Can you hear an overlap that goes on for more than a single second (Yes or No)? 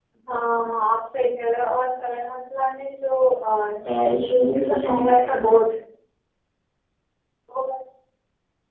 Yes